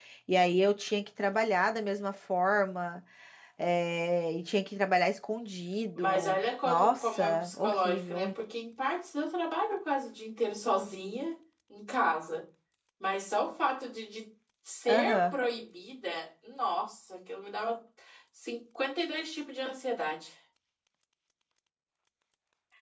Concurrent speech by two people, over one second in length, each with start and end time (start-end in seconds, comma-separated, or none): 6.0-8.2